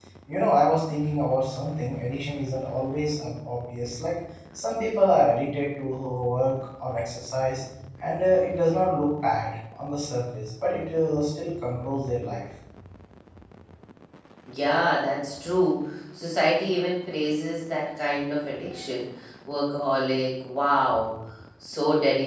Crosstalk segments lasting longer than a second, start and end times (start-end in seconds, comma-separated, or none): none